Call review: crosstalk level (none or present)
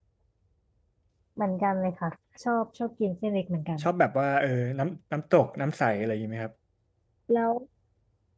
none